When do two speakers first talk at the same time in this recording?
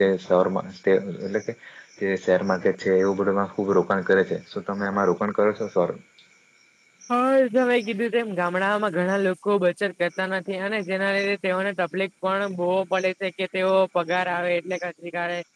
none

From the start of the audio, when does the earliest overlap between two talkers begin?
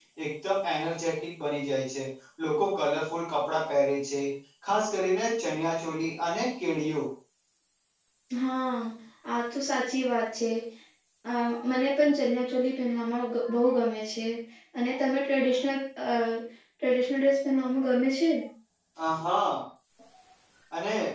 none

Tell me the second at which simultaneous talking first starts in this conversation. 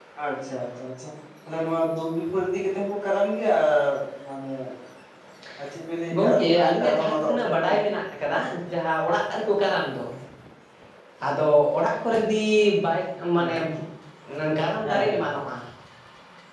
6.1 s

